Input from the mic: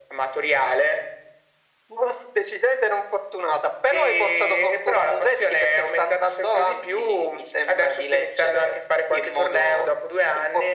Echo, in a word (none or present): present